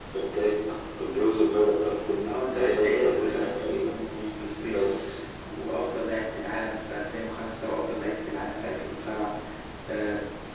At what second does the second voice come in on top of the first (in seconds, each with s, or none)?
2.2 s